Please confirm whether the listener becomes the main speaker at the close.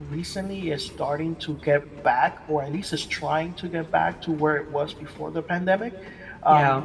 No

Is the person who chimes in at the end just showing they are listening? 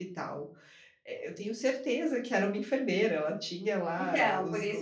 No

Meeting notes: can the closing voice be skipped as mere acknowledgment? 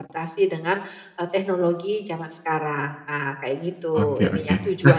No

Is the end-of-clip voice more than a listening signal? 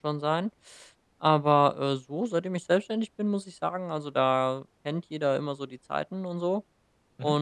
No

